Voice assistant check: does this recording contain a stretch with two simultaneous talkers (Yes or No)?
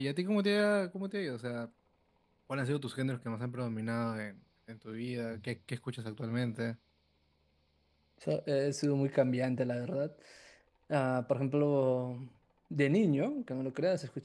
No